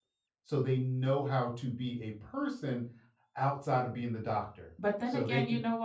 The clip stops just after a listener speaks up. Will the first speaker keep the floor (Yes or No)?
No